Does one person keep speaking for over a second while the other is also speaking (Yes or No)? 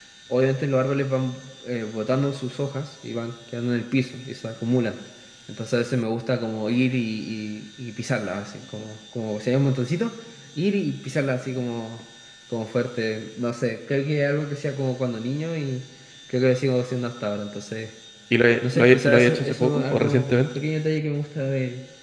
Yes